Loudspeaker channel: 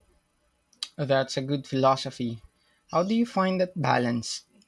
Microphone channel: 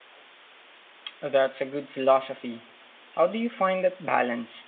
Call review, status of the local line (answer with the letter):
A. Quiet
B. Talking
A